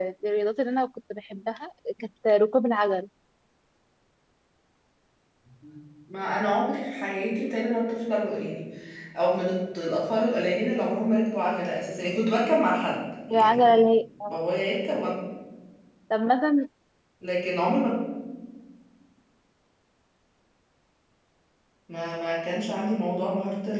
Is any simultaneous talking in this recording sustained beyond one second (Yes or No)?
No